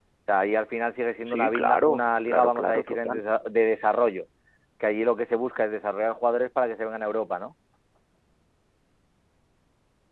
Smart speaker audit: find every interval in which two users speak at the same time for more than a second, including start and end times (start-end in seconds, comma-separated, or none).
1.3-3.2